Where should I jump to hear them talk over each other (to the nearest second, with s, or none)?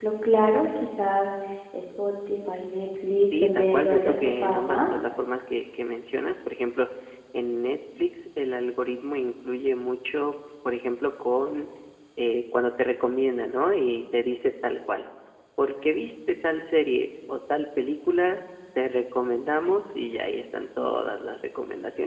3 s